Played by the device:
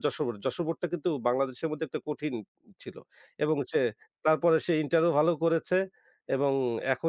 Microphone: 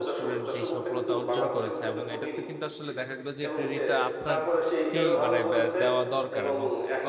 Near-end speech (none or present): present